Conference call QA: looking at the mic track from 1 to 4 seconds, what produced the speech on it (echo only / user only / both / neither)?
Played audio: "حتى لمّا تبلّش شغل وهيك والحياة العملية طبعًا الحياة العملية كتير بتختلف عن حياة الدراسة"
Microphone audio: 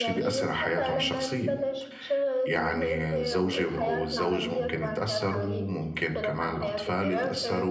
both